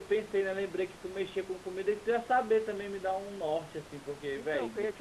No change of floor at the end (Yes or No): No